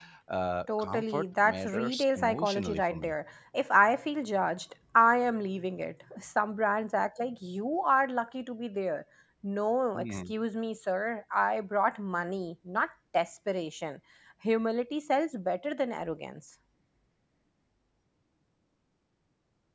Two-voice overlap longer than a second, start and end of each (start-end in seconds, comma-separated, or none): 0.8-3.1